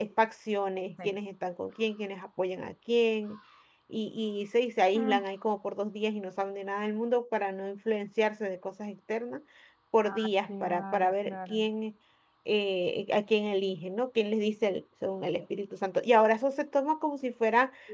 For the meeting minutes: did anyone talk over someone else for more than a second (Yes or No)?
Yes